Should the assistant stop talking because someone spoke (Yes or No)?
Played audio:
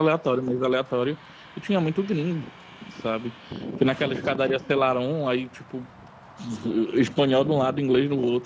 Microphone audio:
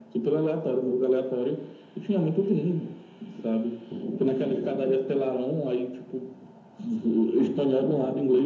No